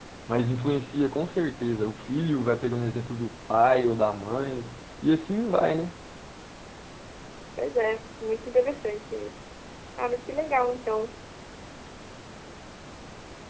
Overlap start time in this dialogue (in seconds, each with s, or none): none